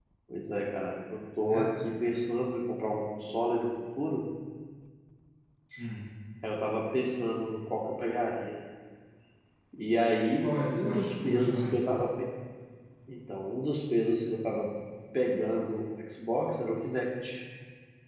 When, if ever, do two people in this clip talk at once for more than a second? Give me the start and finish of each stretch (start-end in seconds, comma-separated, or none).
10.4-11.8